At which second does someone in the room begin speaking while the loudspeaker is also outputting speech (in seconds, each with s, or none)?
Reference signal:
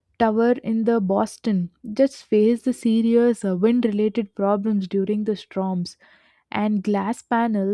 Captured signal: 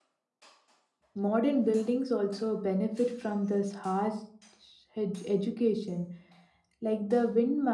1.1 s